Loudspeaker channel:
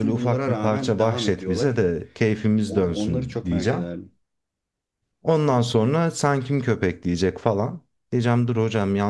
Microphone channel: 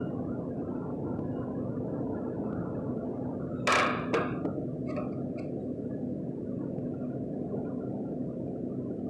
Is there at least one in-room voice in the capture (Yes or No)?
No